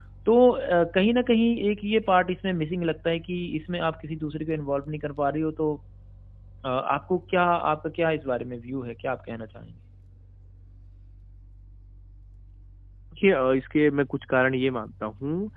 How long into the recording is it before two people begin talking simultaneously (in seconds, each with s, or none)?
none